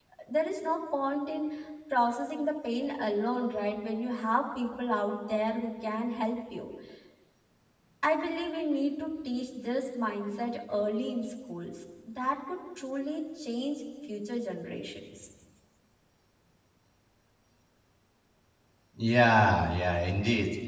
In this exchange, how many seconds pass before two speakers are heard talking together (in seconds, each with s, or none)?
none